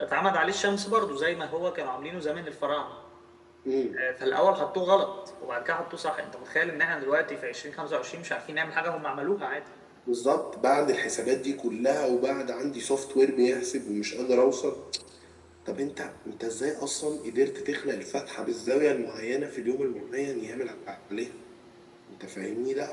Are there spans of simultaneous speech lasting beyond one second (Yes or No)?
No